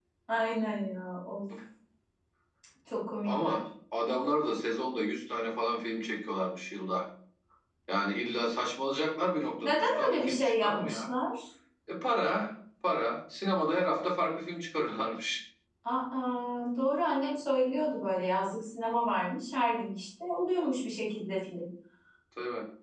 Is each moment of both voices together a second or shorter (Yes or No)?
No